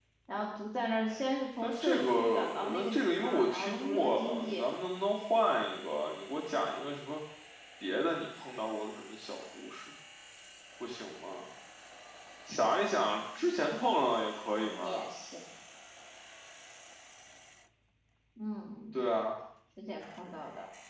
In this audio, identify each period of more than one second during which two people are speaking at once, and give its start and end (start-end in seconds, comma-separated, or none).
1.6-4.7